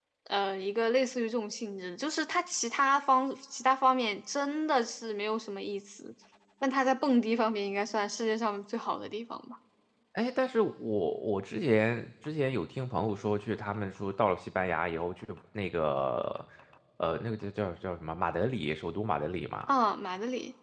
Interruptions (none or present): none